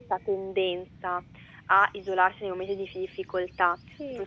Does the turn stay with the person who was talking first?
Yes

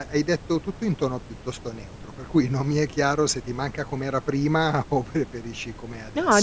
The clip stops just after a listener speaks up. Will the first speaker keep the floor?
No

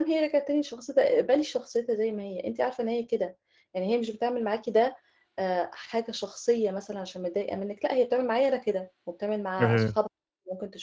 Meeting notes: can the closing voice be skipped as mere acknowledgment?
Yes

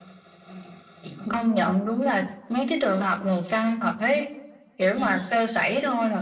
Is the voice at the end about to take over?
No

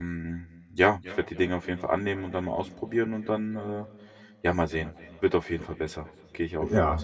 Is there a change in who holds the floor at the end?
Yes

